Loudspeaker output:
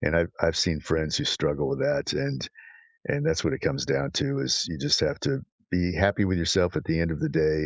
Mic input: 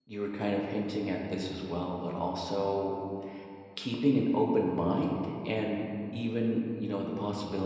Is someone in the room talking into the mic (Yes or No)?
Yes